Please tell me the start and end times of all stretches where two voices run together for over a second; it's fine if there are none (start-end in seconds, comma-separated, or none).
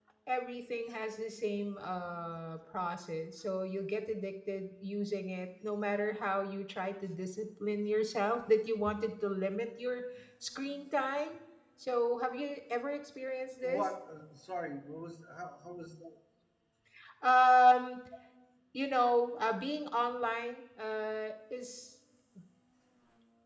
none